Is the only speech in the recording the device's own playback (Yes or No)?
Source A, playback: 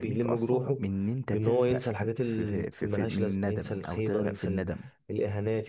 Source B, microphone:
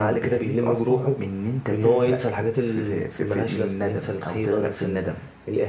Yes